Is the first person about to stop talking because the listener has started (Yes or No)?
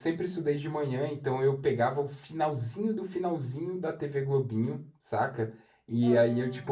No